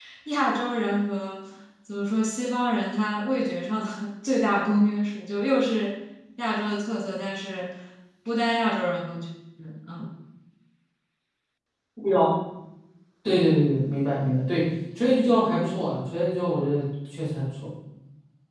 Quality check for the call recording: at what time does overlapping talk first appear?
none

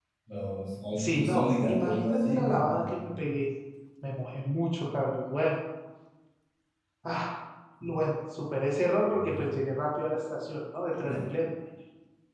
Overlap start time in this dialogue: 1 s

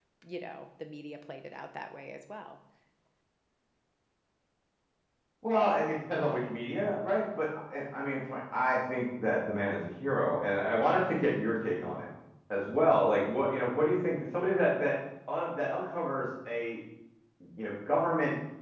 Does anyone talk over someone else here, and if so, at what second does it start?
none

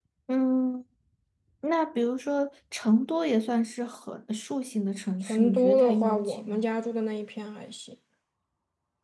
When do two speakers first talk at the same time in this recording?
5 s

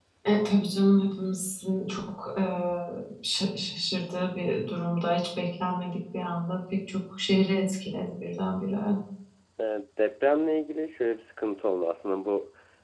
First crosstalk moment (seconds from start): none

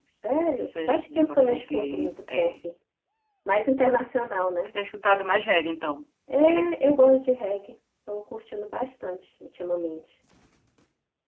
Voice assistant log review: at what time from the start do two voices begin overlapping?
1 s

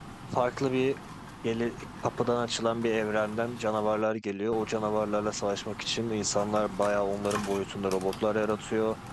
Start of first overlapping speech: none

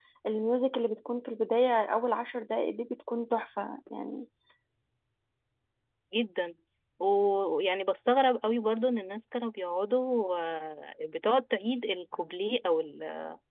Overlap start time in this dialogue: none

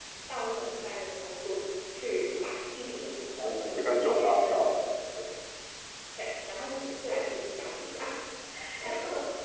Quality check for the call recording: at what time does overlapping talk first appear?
3 s

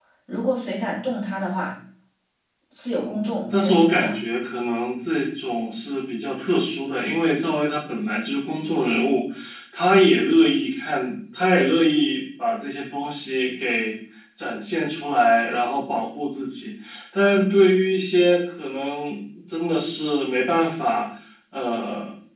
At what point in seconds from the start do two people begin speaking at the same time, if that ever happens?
3 s

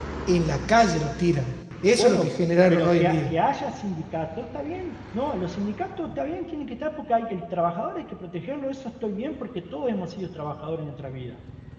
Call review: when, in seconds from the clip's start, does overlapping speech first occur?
2 s

